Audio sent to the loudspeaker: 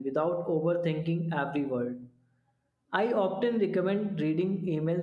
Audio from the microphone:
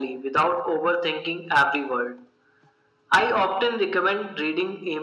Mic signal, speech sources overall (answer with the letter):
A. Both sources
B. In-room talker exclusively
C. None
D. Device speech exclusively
D